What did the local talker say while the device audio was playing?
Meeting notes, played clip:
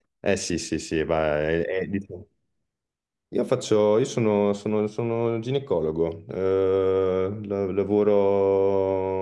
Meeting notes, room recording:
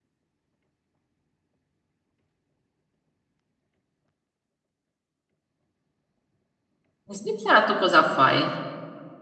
In Svizzera tu cosa fai?

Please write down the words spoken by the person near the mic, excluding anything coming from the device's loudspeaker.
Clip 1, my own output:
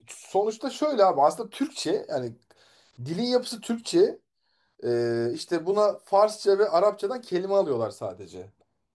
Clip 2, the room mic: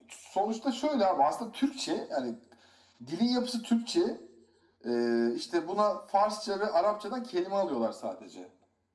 none

